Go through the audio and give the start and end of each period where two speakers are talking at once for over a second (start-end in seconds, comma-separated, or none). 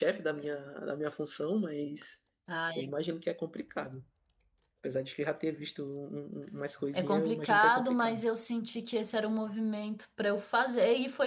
6.9-8.2